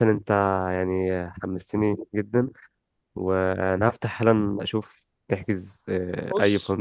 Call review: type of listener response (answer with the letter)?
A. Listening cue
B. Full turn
B